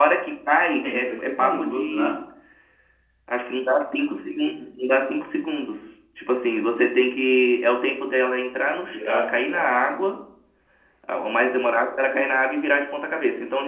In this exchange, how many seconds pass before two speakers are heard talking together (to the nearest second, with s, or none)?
1 s